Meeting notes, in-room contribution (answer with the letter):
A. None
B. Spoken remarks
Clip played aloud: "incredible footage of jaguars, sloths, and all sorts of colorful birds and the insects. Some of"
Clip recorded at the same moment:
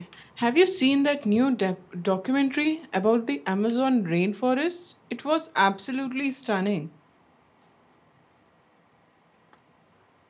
B